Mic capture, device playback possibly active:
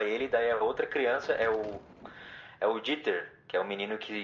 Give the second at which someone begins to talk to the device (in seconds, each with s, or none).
none